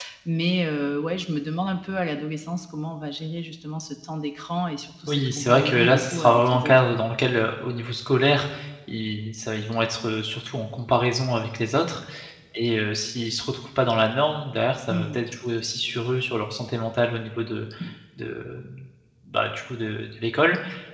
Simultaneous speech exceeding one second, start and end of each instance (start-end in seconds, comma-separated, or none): 5.1-6.8